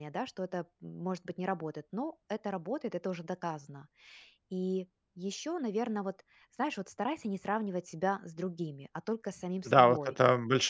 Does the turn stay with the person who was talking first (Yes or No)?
No